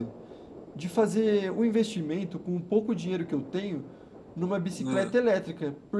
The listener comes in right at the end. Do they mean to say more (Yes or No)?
No